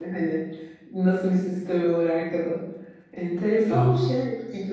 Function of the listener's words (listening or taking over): listening